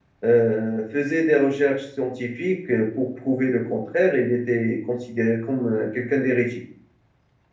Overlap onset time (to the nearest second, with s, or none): none